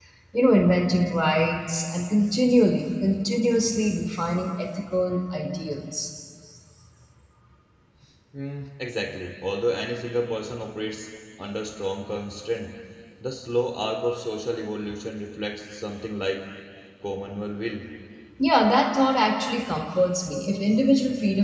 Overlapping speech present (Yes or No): No